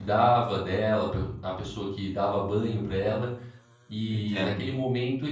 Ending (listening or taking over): listening